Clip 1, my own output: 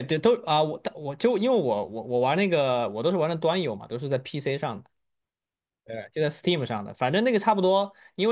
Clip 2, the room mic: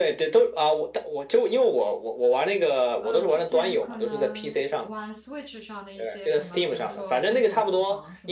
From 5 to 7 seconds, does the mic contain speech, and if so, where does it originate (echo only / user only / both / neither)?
both